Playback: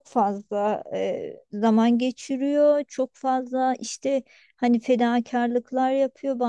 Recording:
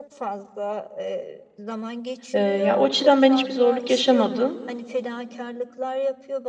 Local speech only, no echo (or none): Ee, ya o açıdan ben hiçbir zorluk yaşamadım.